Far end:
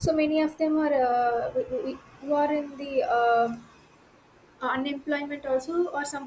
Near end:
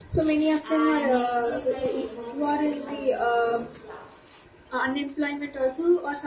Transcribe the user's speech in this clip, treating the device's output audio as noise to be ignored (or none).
and next is like eco-friendly as you told yeah